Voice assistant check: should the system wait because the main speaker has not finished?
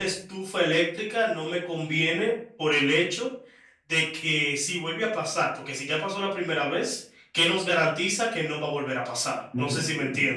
No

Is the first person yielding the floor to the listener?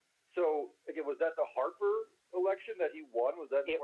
Yes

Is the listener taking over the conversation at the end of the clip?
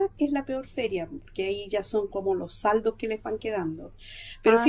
No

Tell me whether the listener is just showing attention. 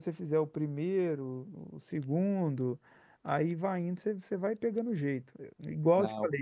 Yes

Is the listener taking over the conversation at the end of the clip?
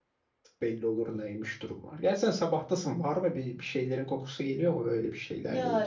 Yes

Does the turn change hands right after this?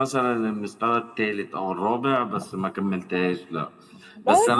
No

